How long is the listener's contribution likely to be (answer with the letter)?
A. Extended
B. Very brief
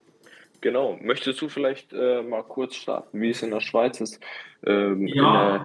B